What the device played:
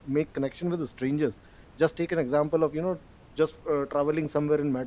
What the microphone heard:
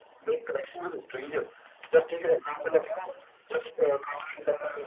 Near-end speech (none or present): none